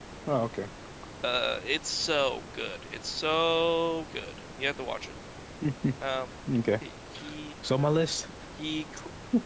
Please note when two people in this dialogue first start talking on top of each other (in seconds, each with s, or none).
none